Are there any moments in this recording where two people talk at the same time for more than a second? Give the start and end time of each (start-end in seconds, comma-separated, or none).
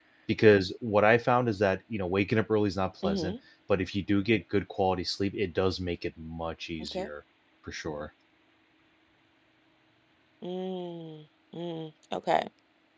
none